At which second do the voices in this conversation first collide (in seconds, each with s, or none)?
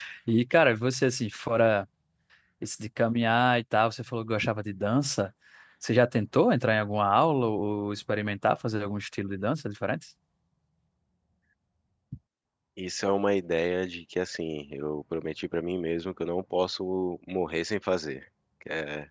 none